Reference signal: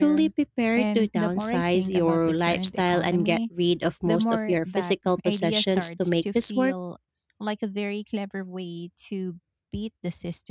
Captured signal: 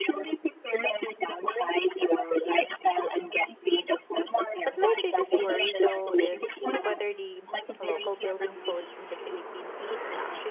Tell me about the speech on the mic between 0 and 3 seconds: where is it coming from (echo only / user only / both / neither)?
echo only